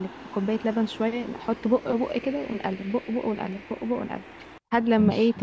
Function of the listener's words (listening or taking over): listening